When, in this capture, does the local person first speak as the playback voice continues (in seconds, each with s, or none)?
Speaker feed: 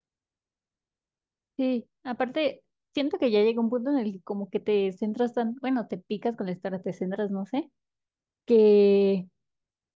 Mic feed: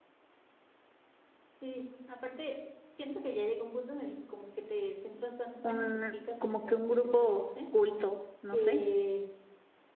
5.6 s